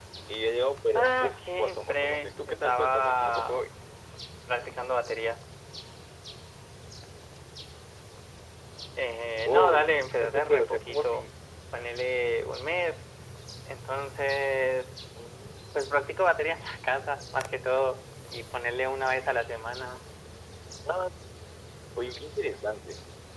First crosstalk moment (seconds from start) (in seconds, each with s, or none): 1.0 s